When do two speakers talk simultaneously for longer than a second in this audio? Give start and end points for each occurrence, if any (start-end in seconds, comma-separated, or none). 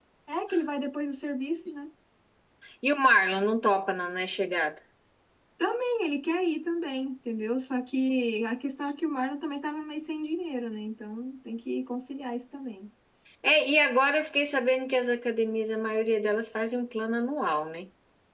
none